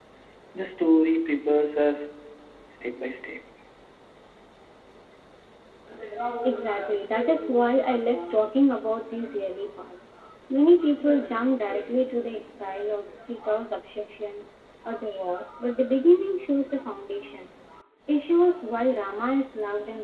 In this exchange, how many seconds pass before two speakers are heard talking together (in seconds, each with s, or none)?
none